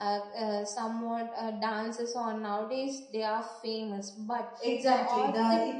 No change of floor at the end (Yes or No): No